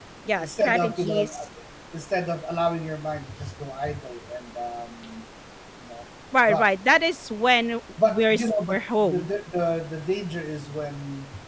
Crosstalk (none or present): present